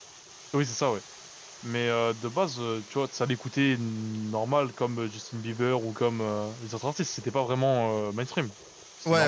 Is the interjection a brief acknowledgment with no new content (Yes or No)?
No